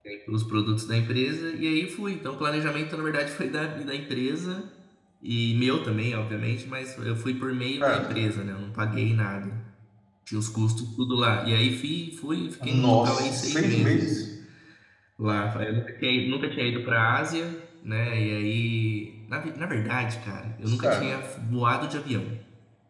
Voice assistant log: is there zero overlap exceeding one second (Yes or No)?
No